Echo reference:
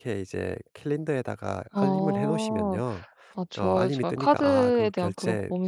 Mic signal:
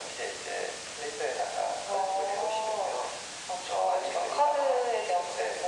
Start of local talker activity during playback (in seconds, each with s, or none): none